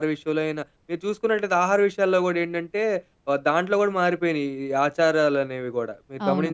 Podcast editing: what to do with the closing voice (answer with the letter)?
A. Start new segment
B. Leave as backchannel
A